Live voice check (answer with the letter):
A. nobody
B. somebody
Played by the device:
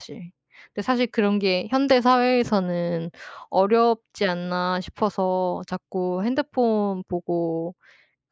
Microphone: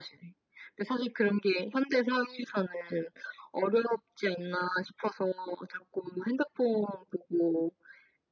A